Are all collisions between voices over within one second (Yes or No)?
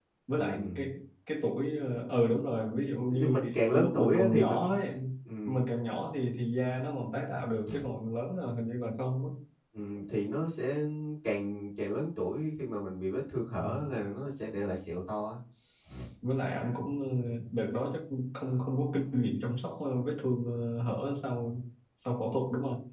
No